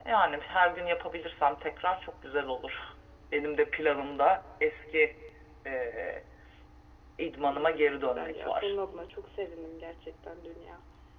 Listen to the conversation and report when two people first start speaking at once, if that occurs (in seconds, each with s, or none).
7.5 s